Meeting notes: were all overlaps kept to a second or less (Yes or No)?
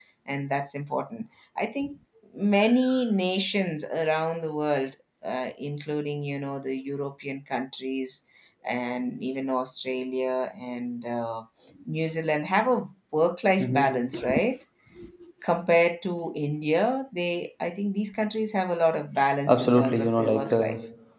No